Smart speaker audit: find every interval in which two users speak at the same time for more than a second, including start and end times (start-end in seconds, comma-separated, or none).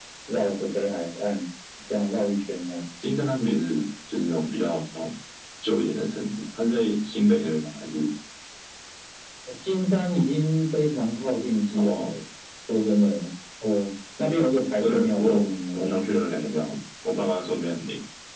14.8-16.0